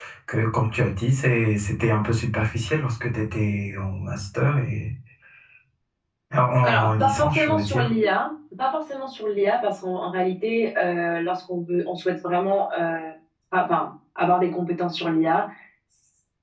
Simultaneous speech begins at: 6.6 s

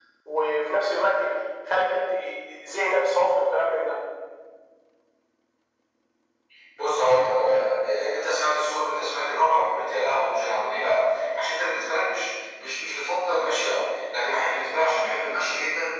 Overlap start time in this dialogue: none

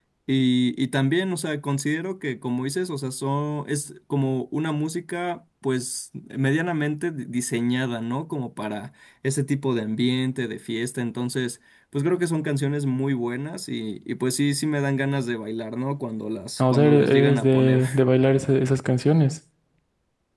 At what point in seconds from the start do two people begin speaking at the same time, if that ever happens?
16.6 s

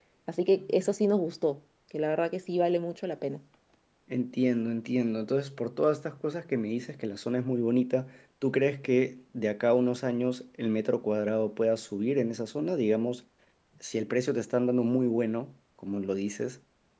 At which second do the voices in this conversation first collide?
none

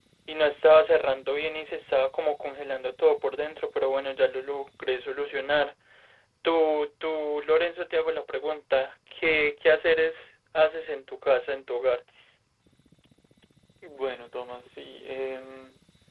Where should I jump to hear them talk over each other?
none

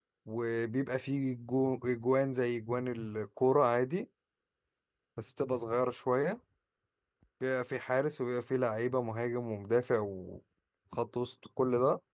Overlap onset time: none

